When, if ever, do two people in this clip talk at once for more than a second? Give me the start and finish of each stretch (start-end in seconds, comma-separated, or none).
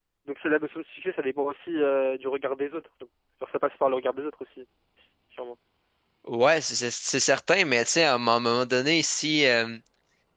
none